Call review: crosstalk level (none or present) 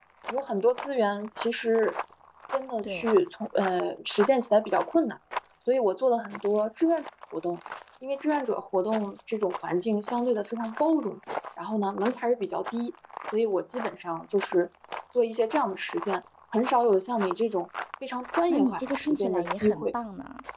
present